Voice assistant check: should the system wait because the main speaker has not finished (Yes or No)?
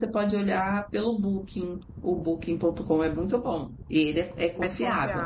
Yes